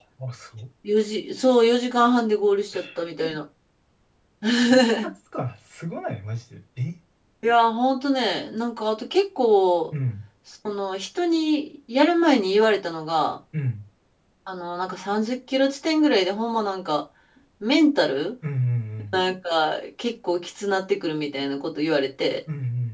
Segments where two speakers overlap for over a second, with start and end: none

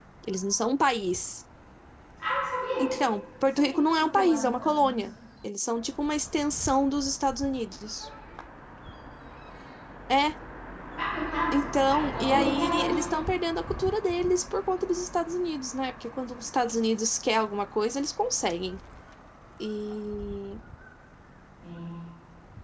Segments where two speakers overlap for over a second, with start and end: 3.6-4.9, 11.5-13.0

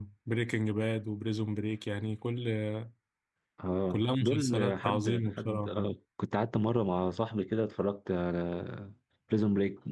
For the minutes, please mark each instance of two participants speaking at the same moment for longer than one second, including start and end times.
3.9-5.8

